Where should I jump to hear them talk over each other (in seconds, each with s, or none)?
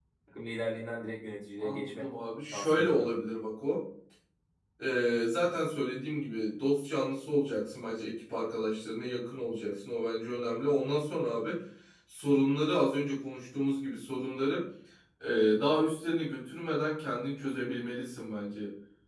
1.6 s